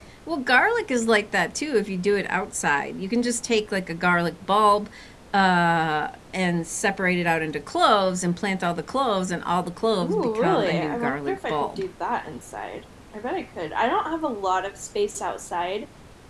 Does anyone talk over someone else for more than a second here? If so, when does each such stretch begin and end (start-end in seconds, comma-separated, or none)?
10.0-11.8